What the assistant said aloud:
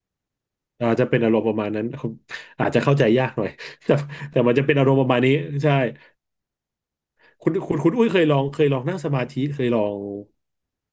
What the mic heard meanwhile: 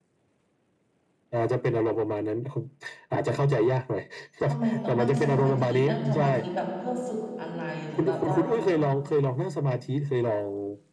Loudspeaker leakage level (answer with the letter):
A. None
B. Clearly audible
B